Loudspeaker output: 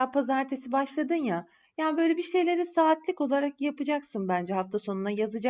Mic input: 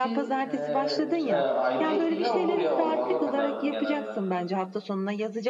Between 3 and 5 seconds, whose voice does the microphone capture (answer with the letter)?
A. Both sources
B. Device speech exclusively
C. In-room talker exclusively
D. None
A